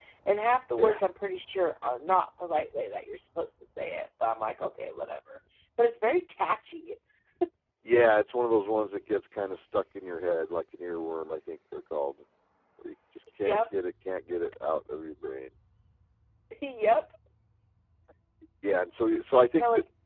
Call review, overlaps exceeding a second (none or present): none